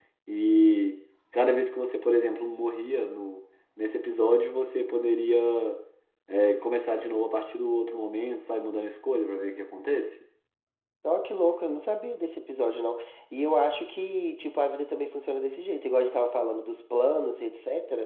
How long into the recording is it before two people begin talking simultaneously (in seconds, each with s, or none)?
none